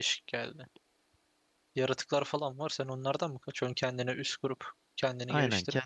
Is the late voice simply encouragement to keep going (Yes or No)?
No